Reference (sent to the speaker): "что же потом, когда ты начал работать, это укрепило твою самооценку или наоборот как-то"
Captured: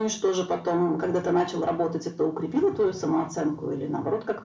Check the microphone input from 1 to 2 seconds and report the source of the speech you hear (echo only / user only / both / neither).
echo only